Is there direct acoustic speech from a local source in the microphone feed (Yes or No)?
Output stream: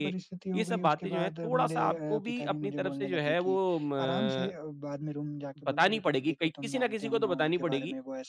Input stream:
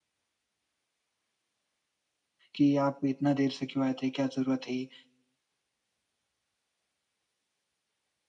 Yes